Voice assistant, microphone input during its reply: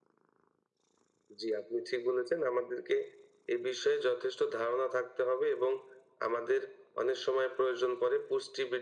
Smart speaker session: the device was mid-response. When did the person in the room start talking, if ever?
none

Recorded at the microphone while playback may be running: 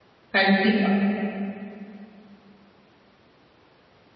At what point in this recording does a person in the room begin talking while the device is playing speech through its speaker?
0.3 s

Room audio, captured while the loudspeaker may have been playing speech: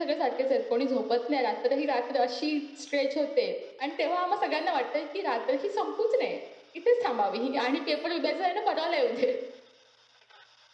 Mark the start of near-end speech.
none

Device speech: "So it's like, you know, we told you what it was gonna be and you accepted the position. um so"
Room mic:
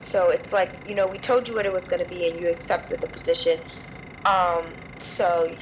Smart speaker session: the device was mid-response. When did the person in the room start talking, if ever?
none

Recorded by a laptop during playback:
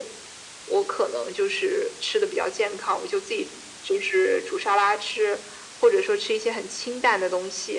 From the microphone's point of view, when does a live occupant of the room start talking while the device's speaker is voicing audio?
none

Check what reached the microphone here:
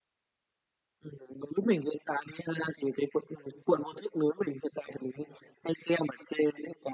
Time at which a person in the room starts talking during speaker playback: none

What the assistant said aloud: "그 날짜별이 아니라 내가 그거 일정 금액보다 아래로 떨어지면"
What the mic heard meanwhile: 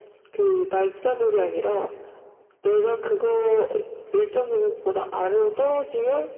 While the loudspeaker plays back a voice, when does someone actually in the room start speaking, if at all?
none

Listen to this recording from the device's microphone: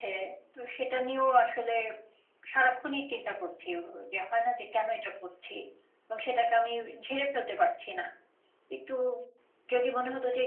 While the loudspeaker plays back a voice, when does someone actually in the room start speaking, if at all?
none

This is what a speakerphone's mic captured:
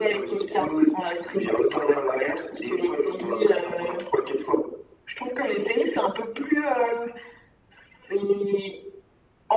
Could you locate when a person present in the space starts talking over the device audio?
none

